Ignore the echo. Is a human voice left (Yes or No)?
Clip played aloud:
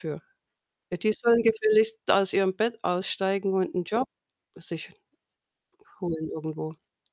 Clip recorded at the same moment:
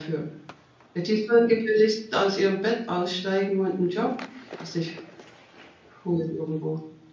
No